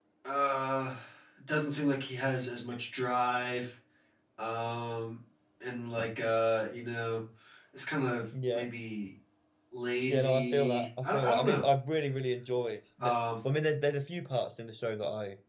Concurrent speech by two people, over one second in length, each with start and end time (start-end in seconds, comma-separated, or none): 10.1-11.6